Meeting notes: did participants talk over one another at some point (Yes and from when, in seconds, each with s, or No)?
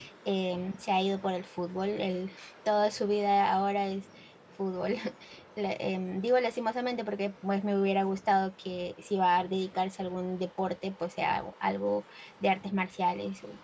No